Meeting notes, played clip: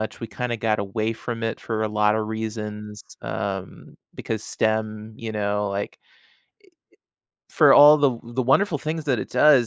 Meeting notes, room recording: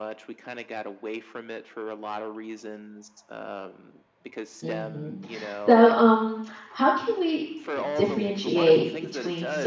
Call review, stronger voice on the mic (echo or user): user